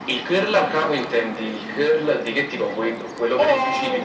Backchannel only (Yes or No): No